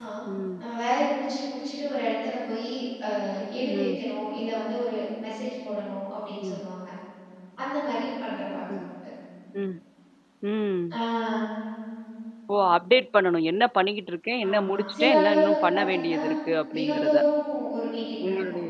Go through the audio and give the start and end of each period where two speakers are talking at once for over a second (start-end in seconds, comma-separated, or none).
14.5-16.2